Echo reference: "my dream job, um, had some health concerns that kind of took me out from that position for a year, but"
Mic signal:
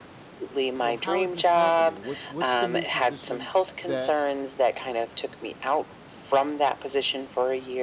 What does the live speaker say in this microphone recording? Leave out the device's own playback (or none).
So how is this happening? What's what's the new position that